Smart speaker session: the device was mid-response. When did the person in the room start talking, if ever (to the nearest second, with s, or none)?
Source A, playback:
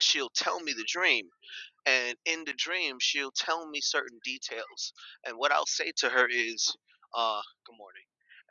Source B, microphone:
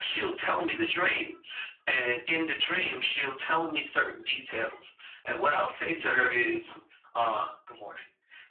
none